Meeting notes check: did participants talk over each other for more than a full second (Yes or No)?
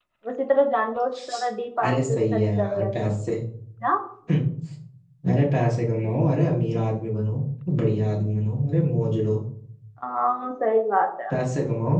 Yes